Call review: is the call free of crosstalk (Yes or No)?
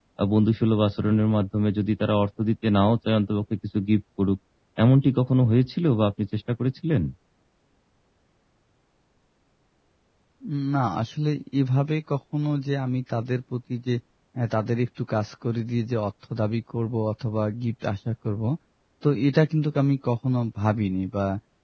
Yes